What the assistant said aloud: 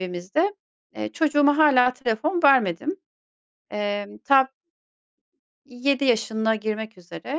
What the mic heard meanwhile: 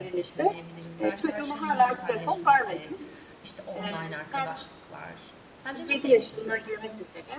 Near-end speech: present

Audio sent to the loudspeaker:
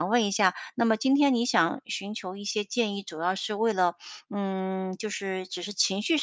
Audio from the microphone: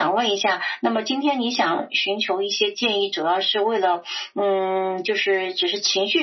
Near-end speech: none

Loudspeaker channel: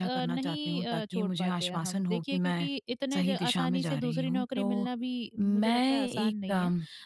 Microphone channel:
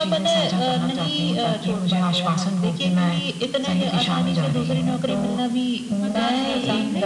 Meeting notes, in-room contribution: present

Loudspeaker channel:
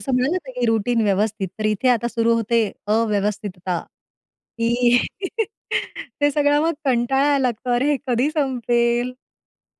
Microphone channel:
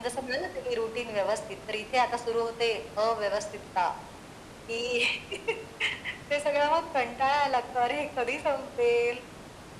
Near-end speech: none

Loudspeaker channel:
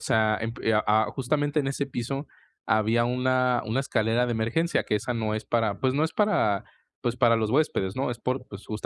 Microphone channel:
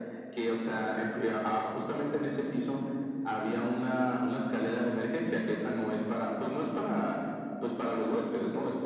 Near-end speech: none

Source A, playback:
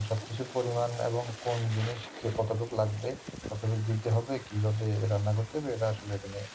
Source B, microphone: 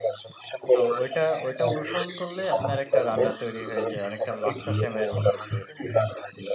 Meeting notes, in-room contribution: present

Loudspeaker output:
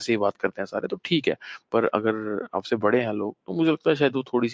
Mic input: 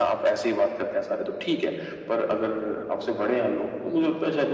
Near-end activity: none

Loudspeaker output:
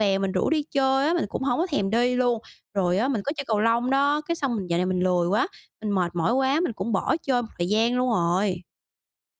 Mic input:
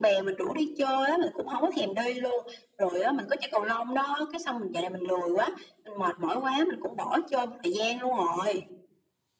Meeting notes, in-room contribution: none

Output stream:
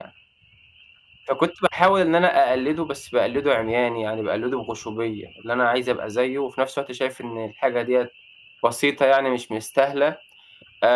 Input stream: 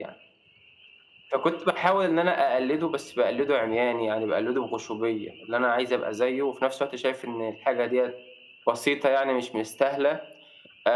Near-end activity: none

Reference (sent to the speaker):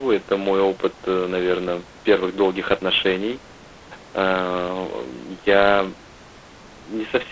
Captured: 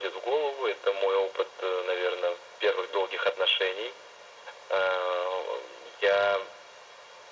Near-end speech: none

